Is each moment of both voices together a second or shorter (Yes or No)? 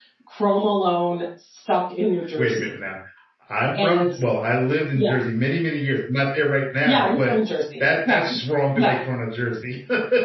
Yes